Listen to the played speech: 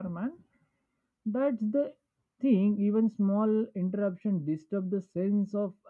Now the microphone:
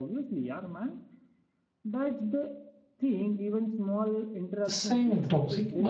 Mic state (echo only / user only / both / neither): both